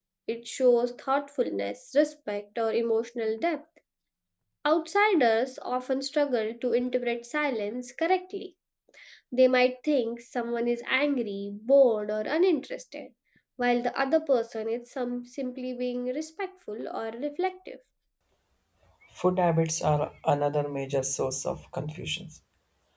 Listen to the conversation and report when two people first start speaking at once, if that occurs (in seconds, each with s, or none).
none